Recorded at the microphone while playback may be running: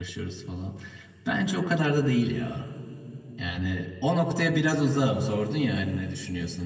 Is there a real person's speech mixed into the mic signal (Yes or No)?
Yes